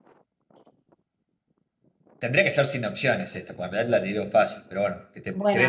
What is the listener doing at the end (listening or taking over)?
taking over